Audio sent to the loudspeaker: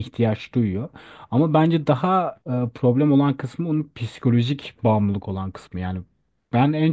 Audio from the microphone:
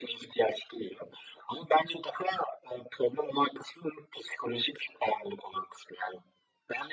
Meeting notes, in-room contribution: none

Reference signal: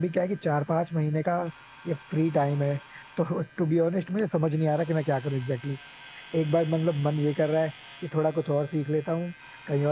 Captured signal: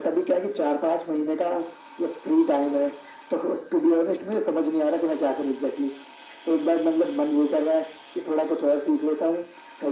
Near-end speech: none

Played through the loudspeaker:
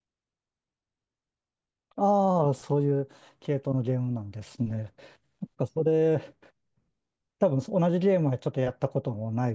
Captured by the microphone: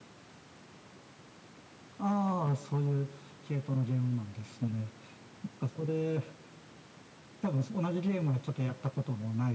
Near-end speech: none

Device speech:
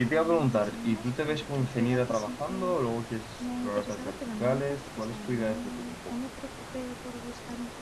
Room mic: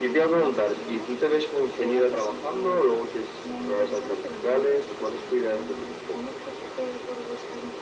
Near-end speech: none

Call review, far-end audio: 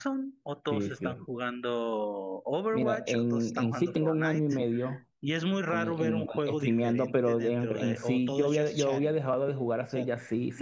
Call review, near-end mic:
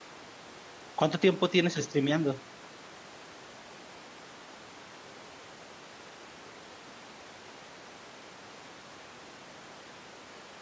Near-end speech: present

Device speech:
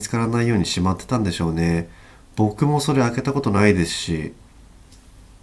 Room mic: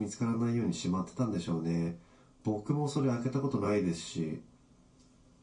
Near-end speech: none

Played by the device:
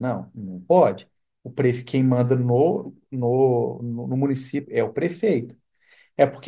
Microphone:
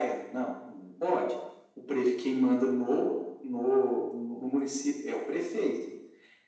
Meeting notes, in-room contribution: none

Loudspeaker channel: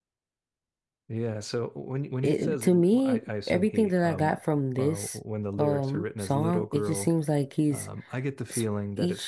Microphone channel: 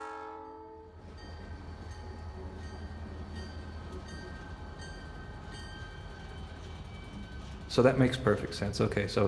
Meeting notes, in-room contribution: present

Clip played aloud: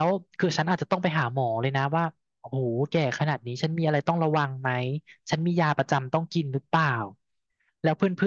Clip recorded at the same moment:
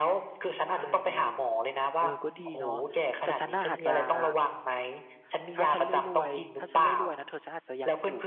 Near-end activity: present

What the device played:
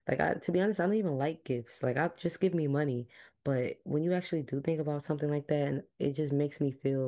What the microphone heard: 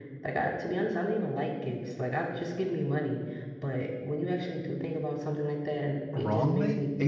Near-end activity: present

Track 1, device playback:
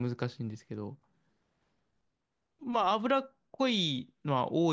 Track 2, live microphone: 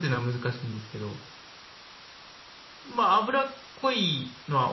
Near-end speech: none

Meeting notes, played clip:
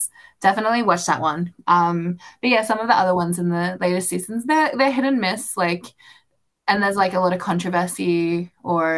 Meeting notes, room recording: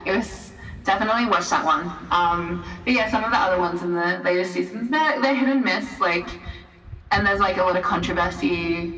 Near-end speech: none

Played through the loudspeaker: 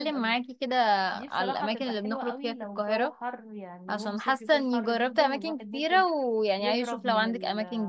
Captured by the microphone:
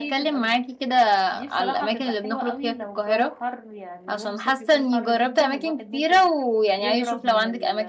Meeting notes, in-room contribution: none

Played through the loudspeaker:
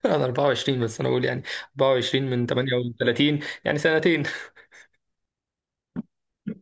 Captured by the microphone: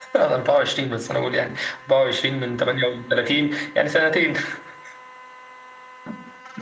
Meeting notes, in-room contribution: none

